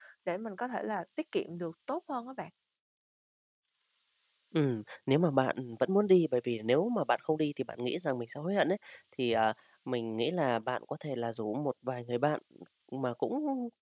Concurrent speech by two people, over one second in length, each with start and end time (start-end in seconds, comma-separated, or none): none